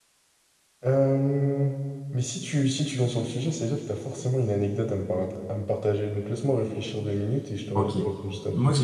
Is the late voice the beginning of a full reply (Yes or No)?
Yes